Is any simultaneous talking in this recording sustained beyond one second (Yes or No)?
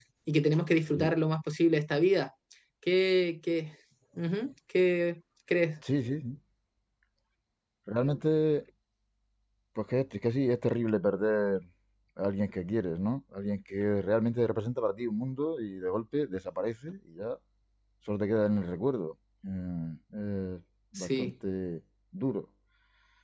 No